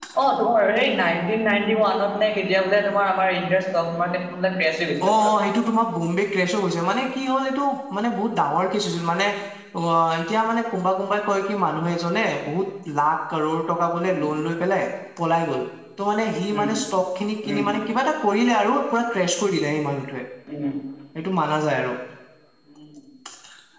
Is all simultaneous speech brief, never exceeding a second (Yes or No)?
Yes